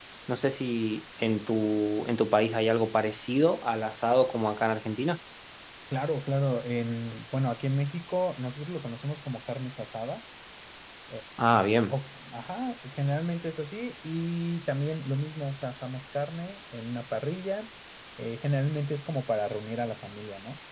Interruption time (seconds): none

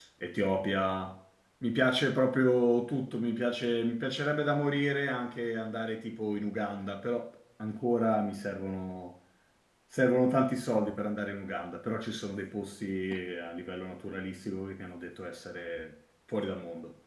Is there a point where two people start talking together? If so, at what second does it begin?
none

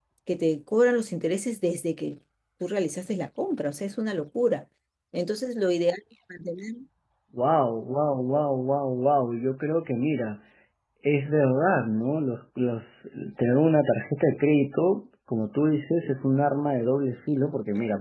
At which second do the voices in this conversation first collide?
none

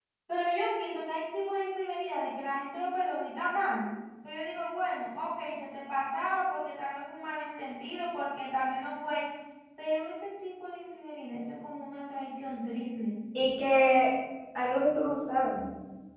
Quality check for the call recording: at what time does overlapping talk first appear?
none

